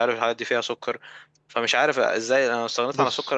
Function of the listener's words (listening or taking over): listening